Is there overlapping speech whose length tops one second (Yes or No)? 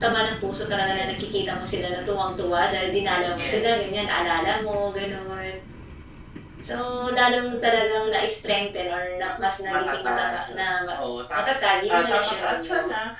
Yes